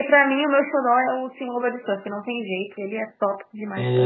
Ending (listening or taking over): taking over